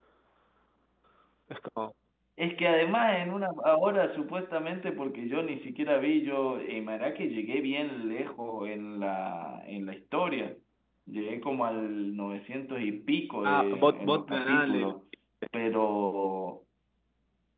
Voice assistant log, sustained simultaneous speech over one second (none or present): present